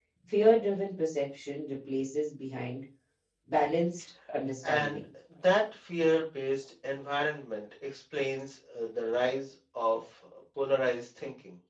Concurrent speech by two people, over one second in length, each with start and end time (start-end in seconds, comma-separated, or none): none